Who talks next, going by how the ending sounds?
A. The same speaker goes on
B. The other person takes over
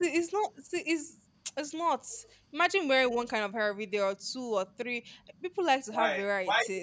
B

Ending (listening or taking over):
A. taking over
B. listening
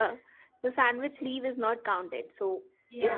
B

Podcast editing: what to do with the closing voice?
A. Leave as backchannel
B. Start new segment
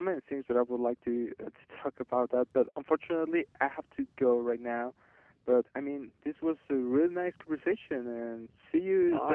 B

